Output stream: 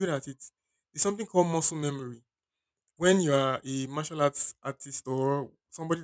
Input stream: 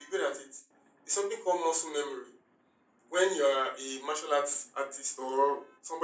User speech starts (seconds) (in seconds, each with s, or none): none